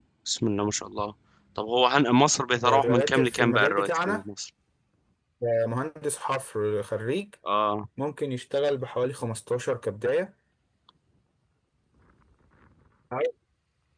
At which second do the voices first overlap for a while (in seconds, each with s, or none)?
2.6 s